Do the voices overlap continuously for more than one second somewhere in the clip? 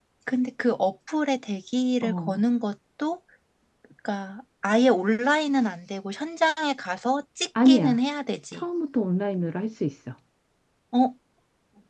No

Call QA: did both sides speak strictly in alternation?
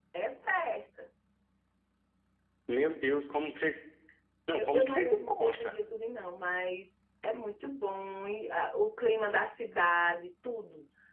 No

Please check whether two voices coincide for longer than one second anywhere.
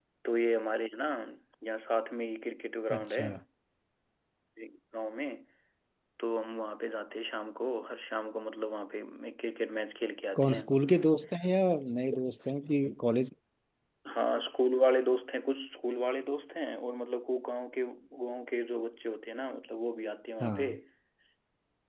No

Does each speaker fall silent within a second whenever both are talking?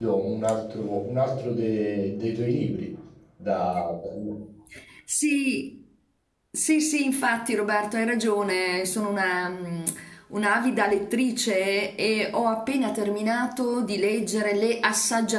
Yes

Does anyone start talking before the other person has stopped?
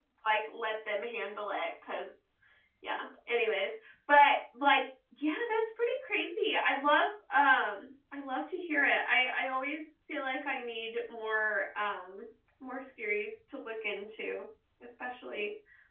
No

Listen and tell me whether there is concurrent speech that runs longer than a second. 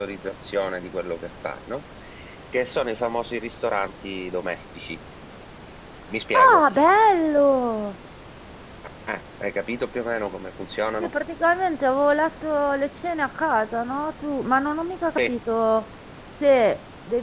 No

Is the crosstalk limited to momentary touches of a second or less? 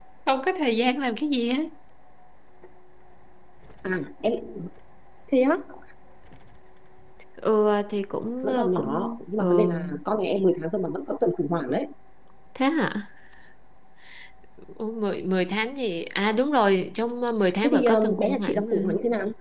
No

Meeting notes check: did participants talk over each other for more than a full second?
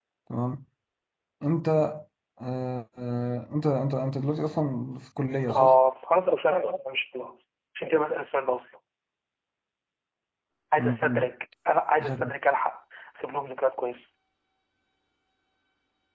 No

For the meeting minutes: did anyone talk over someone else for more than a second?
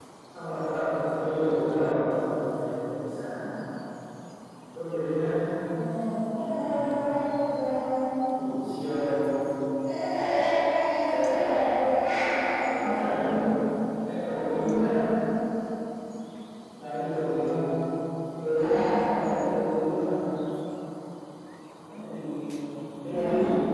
No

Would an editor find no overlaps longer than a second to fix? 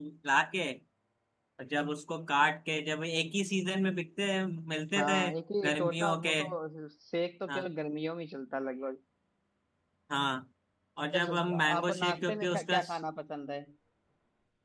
No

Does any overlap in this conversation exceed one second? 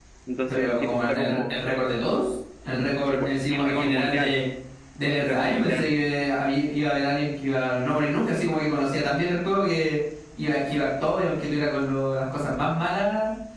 Yes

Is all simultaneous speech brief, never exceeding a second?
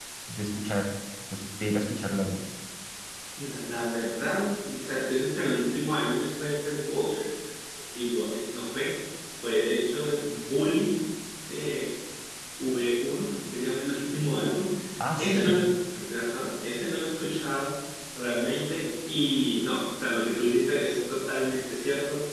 Yes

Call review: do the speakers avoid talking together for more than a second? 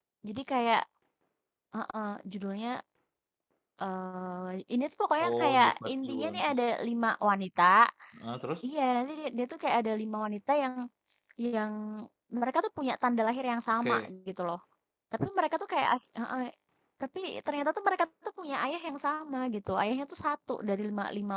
No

